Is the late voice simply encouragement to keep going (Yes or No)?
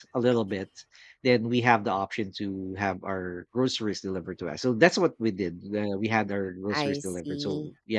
Yes